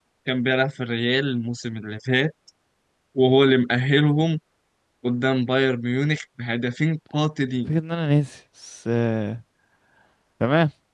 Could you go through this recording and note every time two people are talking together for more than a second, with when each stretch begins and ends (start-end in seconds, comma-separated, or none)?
none